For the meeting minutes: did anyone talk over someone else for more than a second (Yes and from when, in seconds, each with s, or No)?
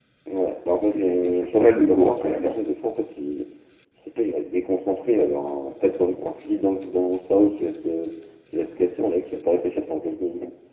Yes, from 0.9 s